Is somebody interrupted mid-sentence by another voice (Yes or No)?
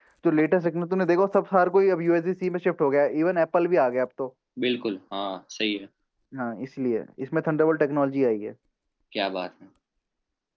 No